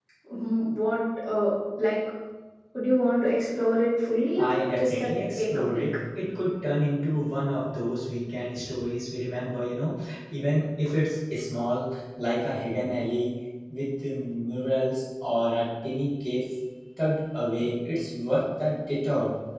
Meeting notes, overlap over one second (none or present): present